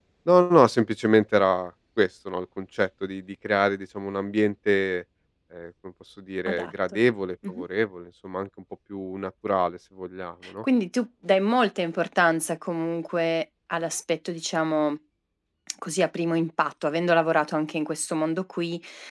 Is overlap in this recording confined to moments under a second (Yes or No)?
Yes